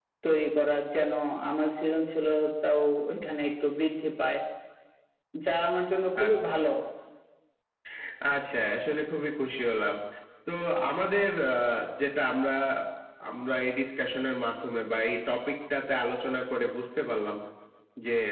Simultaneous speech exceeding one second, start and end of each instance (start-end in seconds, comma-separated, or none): none